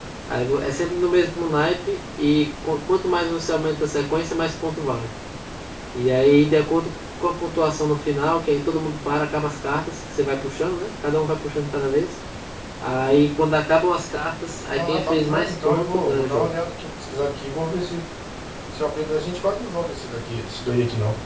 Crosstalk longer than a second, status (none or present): present